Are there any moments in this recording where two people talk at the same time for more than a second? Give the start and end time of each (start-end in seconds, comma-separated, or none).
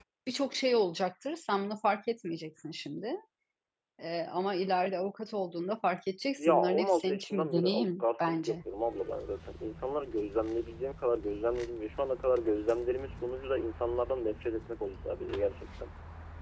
6.4-8.6